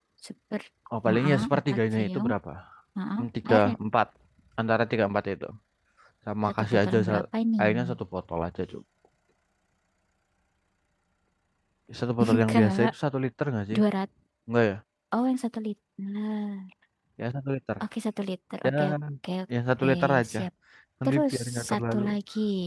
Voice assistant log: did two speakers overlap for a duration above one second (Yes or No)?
Yes